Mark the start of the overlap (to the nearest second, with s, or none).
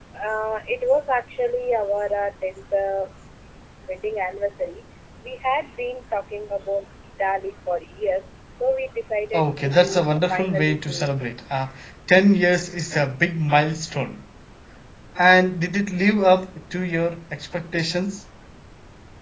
9 s